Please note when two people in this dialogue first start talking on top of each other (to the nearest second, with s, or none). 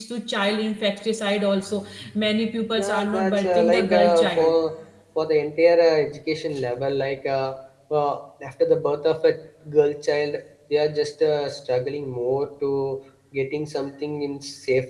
3 s